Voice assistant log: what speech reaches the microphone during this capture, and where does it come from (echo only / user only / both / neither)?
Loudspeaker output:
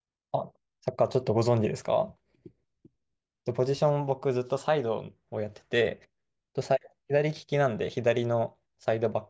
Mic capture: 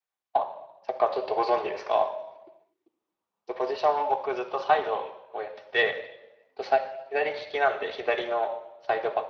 echo only